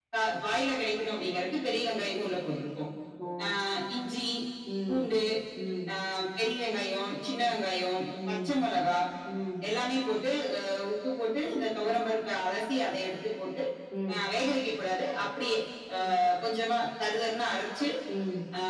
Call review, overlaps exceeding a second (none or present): none